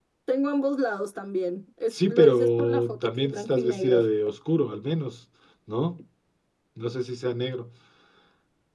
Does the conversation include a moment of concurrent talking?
Yes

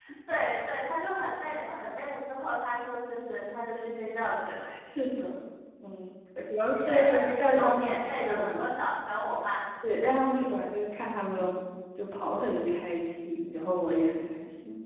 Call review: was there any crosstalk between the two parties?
Yes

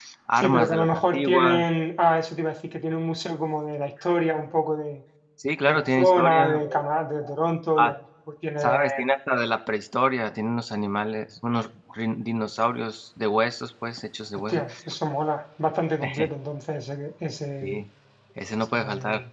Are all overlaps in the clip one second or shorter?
No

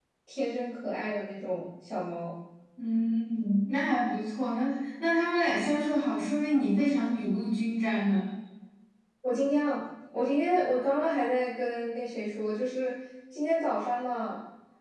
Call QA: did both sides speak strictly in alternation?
Yes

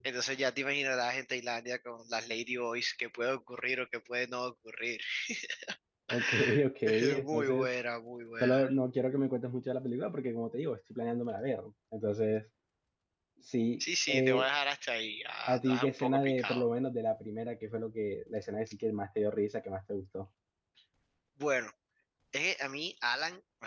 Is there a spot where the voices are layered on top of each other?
Yes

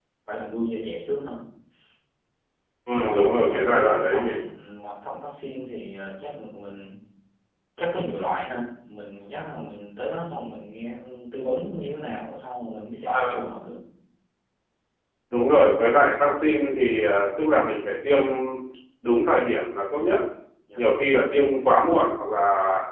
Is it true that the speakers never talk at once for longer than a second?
No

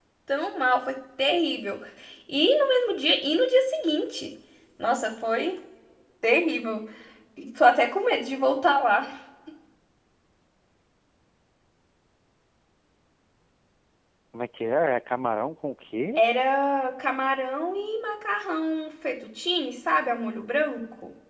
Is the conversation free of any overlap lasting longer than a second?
Yes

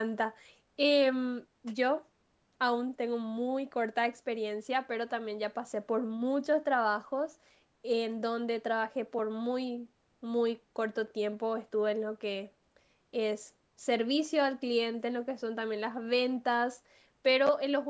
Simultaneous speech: No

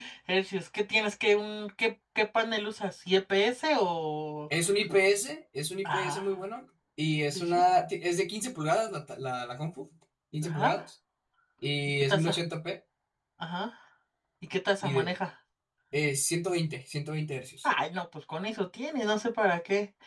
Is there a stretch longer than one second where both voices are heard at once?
No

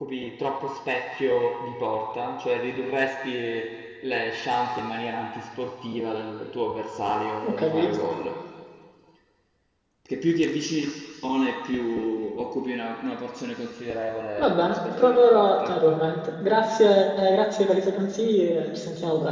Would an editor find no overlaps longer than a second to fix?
No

